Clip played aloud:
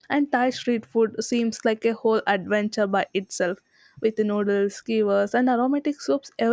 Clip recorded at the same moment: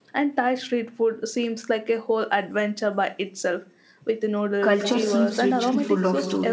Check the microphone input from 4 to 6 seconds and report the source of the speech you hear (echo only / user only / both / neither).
both